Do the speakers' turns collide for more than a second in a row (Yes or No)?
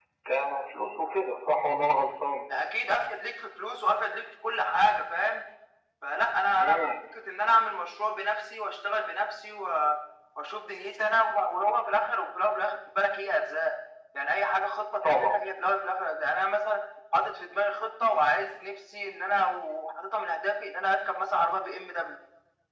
No